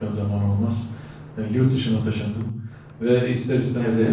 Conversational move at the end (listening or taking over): listening